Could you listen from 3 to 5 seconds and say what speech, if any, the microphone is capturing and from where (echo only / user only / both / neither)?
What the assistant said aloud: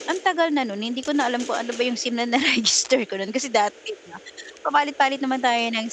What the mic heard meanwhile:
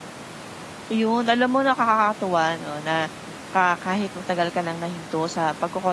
user only